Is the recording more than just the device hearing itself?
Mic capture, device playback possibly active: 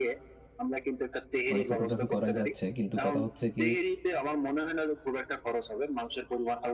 Yes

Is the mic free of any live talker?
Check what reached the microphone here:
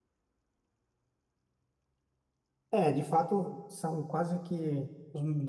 No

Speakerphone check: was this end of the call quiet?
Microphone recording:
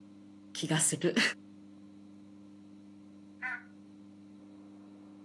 No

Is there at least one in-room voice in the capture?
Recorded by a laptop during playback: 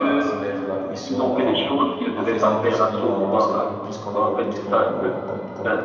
Yes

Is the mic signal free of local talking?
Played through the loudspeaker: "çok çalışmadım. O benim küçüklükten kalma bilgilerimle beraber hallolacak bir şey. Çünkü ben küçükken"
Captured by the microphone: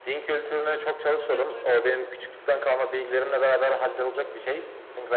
No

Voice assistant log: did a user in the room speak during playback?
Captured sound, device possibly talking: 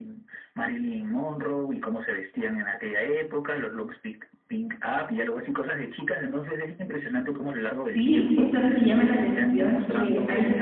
Yes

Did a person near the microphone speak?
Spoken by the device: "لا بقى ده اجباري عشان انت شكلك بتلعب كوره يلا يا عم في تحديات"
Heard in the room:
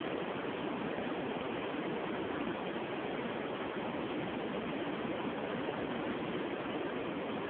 No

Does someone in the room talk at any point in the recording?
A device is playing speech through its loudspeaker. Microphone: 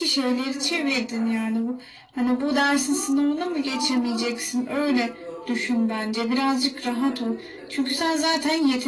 Yes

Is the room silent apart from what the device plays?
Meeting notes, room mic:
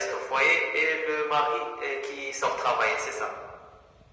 Yes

